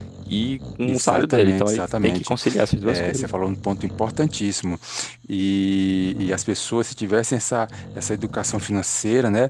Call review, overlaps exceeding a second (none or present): present